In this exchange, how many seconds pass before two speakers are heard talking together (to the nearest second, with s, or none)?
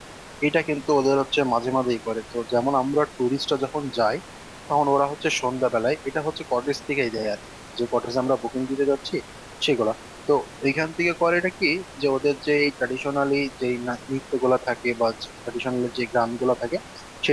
none